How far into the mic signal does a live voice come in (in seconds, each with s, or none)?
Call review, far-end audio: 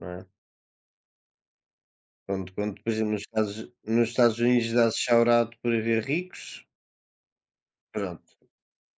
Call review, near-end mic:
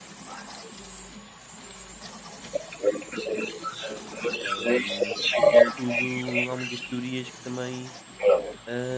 4.4 s